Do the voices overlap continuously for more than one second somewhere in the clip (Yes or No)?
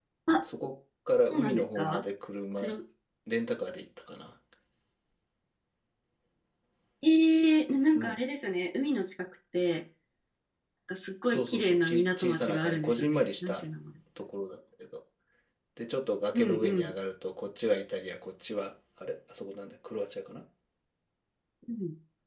Yes